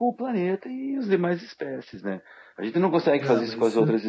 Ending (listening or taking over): listening